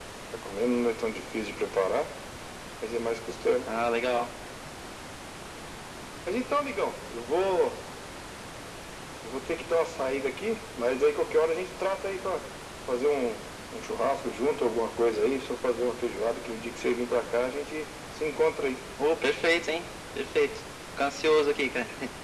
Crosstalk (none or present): none